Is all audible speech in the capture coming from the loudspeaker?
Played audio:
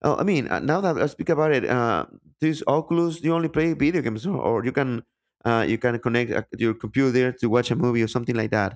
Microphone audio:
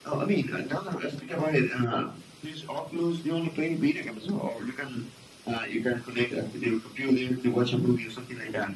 Yes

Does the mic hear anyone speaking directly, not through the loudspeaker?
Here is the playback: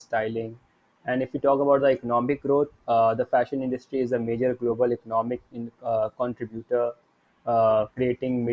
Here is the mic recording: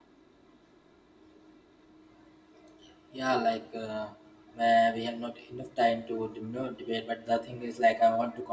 Yes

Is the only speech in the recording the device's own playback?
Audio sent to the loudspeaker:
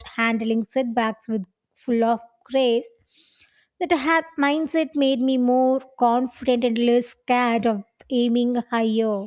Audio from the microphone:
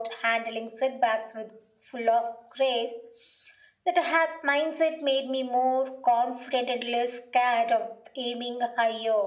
Yes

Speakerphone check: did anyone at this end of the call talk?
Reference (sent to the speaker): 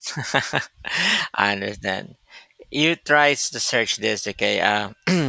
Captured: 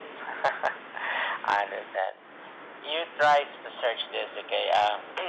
No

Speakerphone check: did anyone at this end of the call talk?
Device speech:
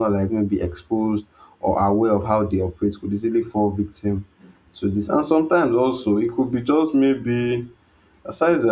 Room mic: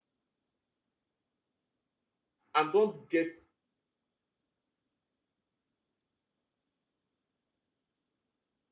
Yes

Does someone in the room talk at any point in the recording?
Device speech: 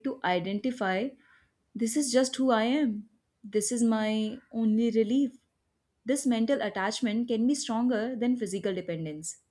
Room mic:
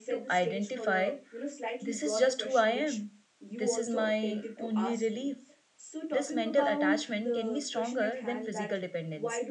Yes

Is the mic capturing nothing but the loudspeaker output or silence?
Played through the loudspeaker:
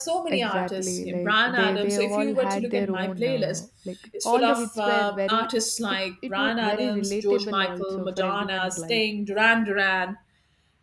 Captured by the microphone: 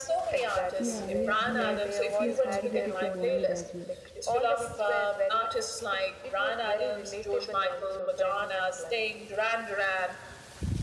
No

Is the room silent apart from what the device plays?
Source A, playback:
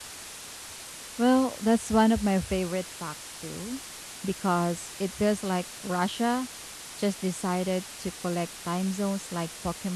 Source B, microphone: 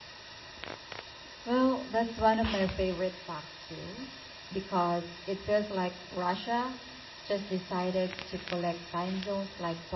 Yes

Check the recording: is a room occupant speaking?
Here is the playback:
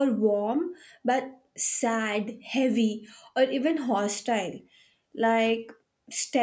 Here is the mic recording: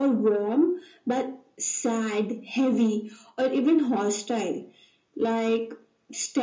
No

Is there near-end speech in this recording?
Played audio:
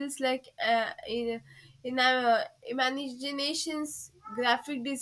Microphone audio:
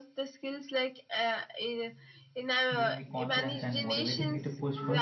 Yes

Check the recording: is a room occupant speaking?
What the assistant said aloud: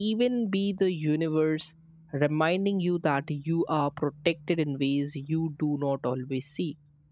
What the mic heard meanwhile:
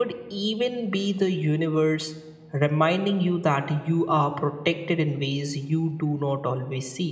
No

